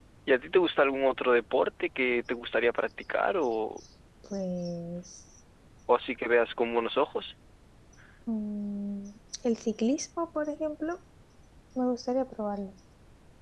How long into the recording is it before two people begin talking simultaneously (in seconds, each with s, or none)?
none